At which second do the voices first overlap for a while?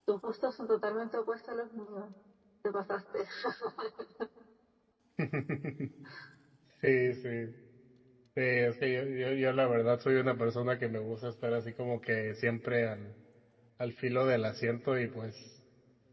none

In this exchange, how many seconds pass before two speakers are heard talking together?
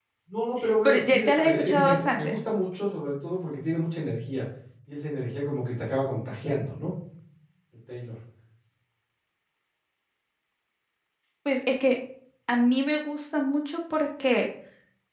0.8 s

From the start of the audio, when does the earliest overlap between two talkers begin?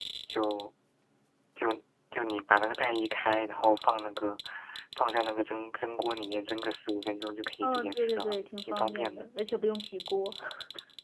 7.6 s

